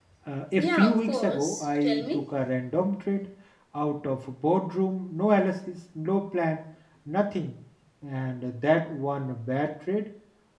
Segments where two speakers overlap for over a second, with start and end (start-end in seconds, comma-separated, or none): 0.6-2.1